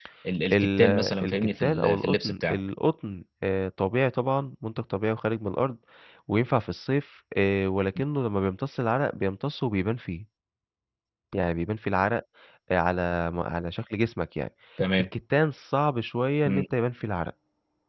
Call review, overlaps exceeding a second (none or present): present